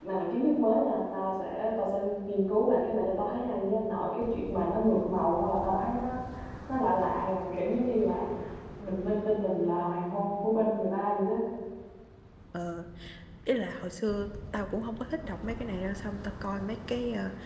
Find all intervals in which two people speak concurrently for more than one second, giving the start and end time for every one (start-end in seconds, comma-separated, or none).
none